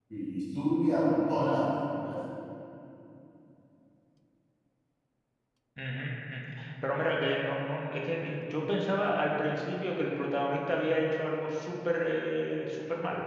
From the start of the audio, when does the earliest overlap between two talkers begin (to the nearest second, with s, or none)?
none